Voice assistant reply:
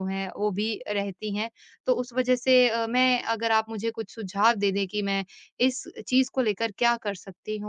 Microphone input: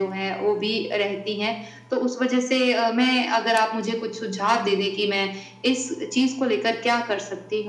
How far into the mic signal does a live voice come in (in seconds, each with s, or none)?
none